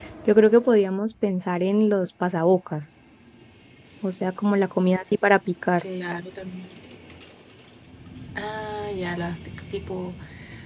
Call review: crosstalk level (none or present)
none